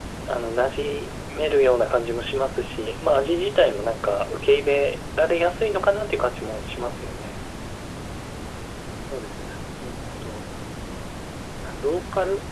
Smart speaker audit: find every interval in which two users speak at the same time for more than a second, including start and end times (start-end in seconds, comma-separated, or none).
none